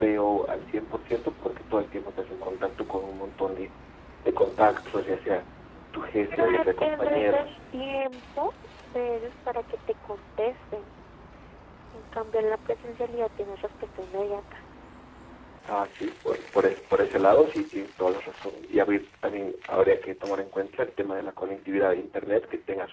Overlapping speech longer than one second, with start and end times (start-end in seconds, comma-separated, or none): 6.3-7.5